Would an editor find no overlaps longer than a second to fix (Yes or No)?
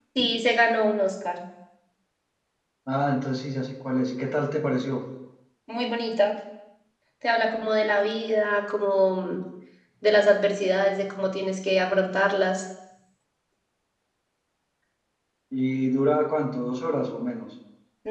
Yes